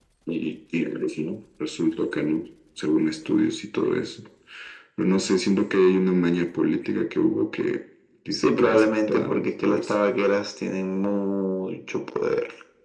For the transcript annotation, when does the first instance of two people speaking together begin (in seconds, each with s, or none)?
8.3 s